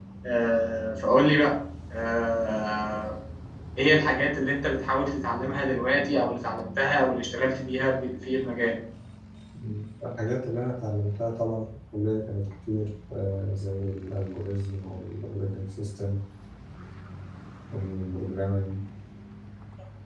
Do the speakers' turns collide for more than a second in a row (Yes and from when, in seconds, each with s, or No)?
No